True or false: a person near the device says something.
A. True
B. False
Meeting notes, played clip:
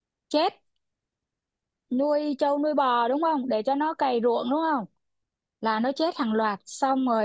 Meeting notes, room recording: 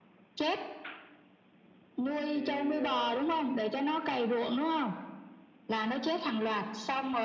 A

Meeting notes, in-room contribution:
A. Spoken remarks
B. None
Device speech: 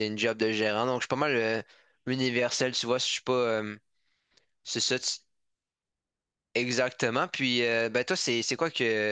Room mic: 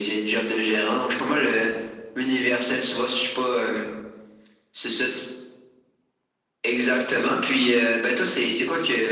B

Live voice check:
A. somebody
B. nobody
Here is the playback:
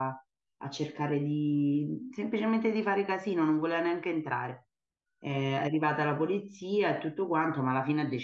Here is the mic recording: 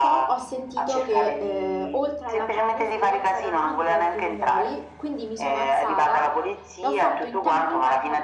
A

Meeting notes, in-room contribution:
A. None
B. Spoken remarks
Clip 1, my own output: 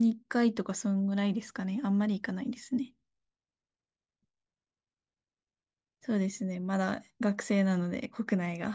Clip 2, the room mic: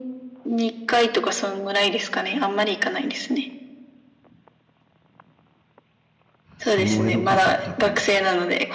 B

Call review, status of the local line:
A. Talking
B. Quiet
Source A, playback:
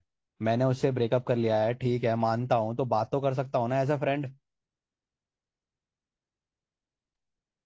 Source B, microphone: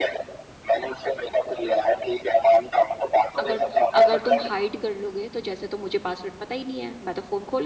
A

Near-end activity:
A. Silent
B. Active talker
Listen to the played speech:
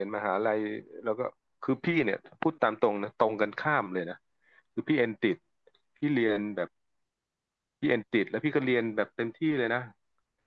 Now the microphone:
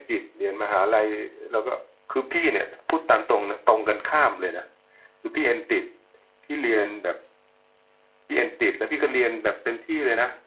A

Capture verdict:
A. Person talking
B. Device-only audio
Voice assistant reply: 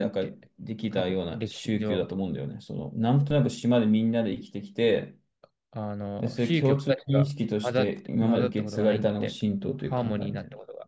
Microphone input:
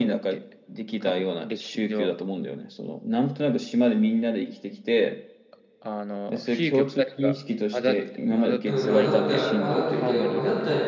A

